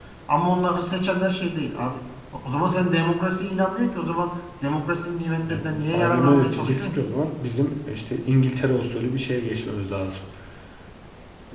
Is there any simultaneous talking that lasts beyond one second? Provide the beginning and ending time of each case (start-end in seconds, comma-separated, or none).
5.4-7.0